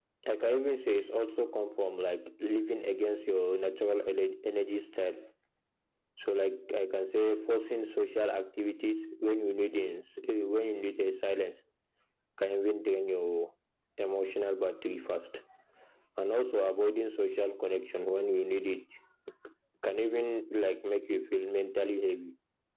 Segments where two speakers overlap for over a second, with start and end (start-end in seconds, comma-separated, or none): none